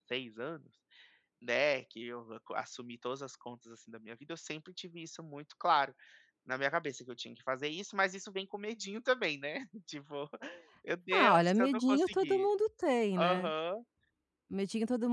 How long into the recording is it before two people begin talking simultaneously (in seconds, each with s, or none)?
11.1 s